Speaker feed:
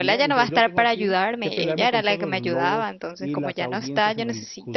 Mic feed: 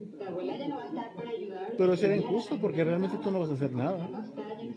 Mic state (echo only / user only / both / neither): both